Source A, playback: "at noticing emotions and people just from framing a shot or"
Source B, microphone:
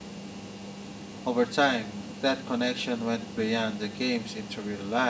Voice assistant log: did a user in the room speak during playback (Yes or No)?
Yes